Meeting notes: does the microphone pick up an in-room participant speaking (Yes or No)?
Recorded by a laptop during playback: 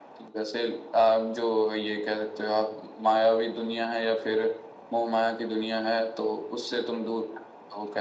No